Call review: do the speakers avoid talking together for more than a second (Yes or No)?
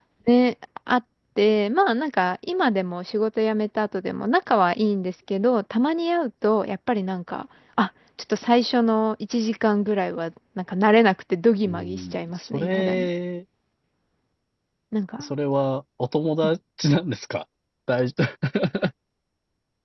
No